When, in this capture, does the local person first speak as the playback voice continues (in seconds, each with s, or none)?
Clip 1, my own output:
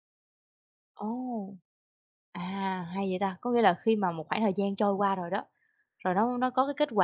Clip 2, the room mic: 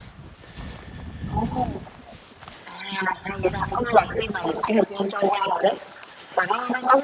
none